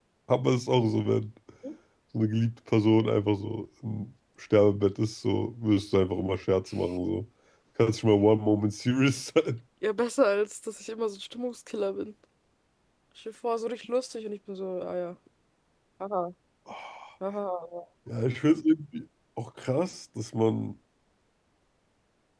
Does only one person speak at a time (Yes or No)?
Yes